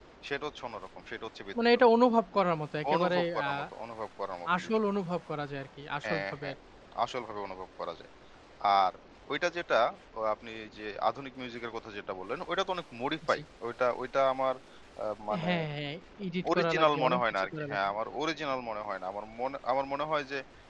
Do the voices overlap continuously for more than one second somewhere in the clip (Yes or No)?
Yes